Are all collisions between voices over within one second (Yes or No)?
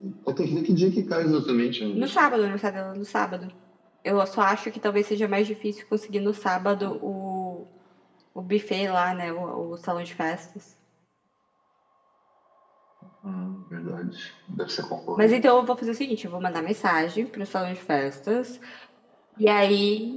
Yes